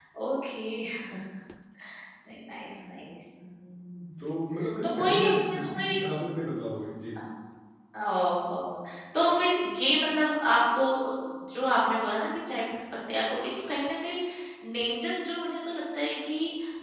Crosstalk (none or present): present